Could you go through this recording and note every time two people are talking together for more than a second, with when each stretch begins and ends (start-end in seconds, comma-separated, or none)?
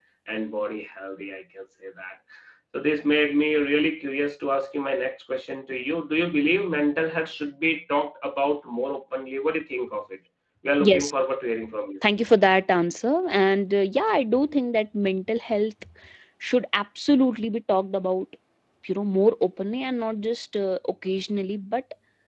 none